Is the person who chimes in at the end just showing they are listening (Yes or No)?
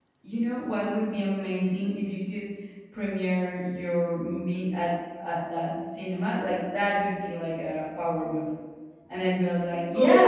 Yes